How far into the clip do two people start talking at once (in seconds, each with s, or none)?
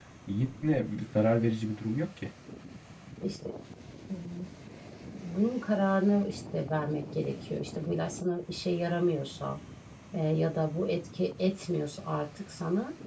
none